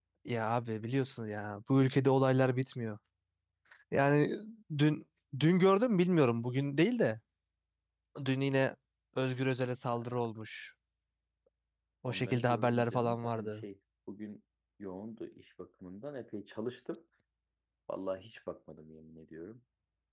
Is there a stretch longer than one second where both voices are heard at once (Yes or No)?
Yes